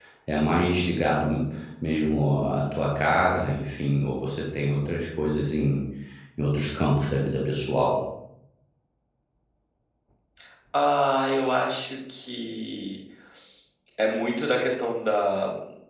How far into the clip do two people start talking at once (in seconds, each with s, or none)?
none